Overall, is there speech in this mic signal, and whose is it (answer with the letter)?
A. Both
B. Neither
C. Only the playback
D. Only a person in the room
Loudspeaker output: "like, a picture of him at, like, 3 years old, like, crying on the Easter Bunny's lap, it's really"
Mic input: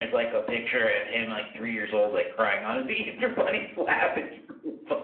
C